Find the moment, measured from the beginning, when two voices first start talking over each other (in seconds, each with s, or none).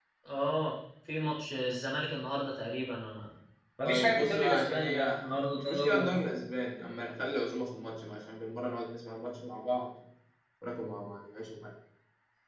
3.8 s